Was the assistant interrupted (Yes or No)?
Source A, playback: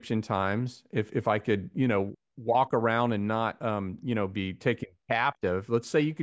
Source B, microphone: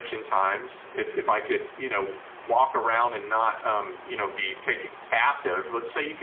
No